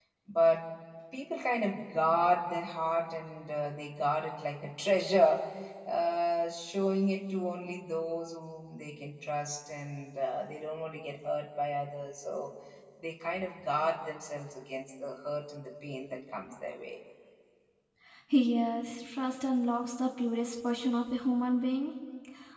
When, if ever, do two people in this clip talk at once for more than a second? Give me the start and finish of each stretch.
none

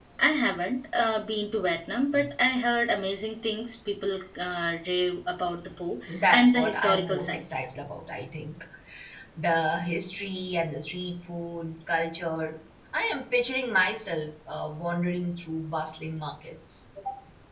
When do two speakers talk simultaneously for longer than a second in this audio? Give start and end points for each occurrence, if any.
6.3-7.7

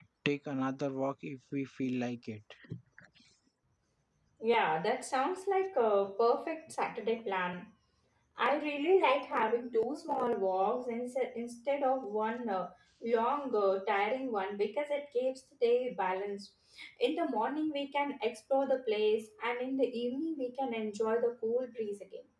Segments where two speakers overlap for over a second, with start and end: none

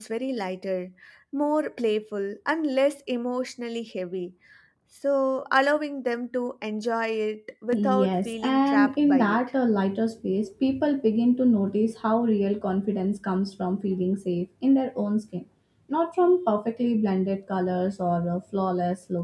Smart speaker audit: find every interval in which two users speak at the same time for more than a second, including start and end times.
7.8-9.4

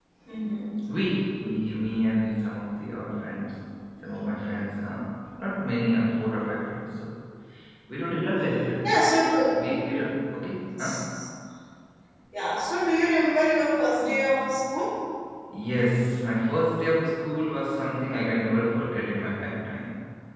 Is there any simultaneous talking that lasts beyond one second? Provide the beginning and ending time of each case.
none

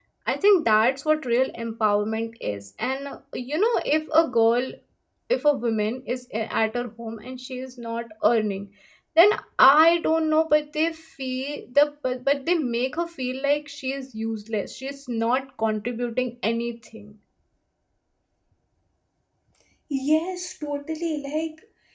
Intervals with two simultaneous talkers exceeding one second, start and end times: none

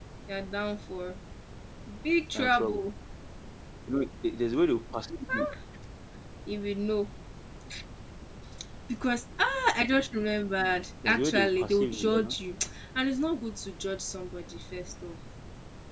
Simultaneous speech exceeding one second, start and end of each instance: 11.0-12.4

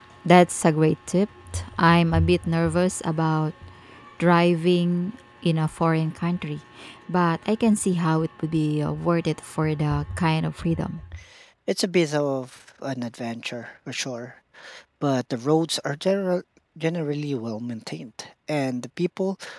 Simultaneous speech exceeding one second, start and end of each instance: none

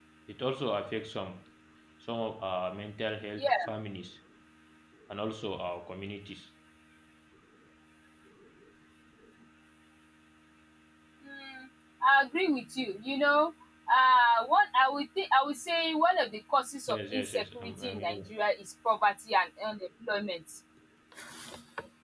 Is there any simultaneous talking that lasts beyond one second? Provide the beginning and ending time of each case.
16.9-18.3

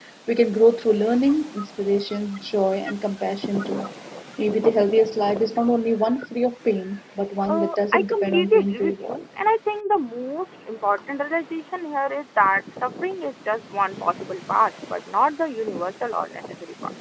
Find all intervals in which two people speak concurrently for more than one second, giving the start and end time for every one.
7.5-9.2

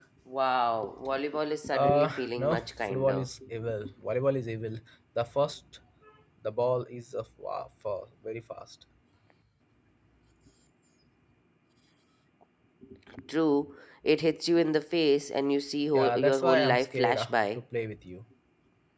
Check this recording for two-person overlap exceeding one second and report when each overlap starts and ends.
1.7-3.2, 15.9-17.6

